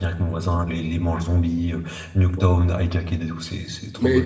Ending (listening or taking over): taking over